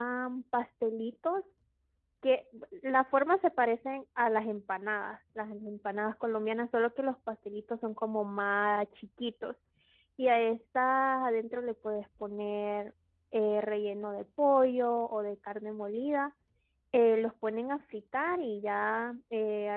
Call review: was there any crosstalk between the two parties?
No

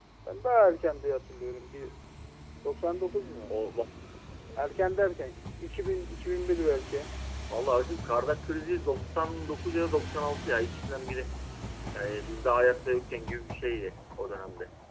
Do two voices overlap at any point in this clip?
No

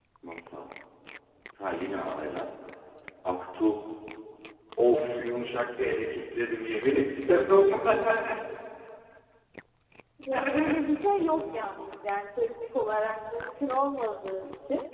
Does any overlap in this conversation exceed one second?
No

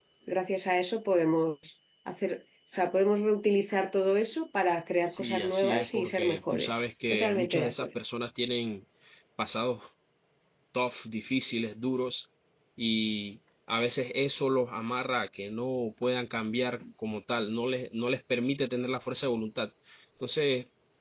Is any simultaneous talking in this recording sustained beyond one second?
Yes, from 5.1 s

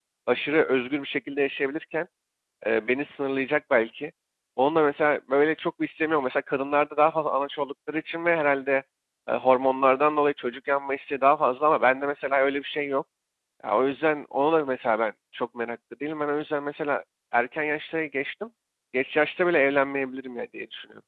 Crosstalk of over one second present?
No

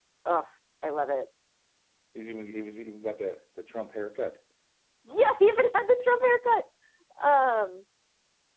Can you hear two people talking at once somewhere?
No

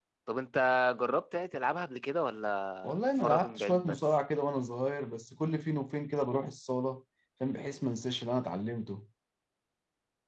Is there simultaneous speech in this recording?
Yes, from 2.8 s

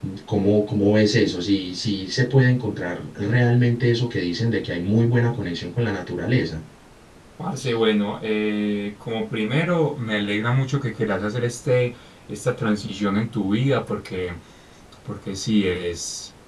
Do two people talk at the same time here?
No

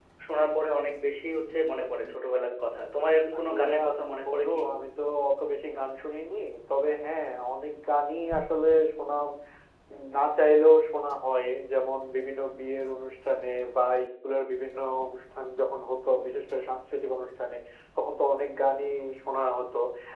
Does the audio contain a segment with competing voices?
Yes, from 3.3 s

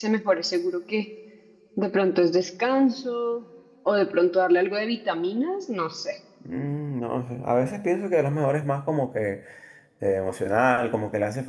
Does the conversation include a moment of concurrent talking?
No

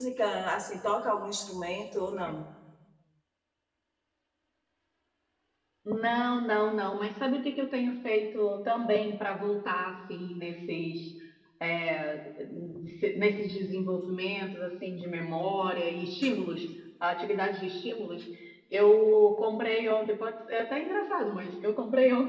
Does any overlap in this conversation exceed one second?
No

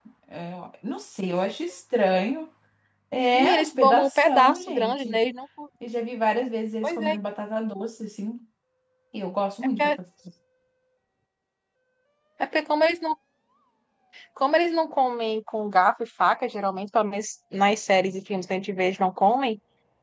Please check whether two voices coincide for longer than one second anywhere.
Yes, from 3.3 s

